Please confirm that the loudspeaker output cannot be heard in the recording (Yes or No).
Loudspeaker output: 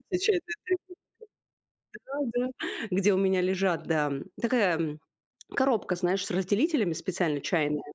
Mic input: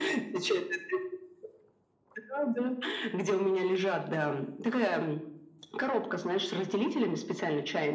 No